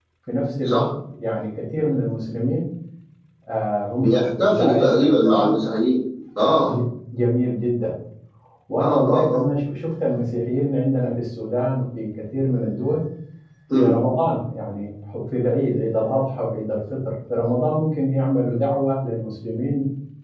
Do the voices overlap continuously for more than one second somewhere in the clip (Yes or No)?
Yes